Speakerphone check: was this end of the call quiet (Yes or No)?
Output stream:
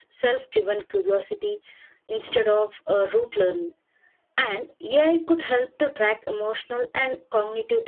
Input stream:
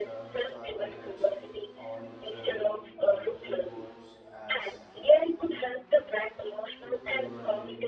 No